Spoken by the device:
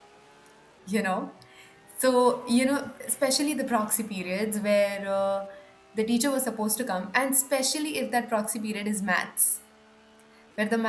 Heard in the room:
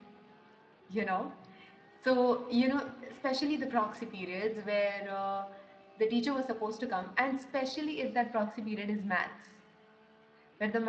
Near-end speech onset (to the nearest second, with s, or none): none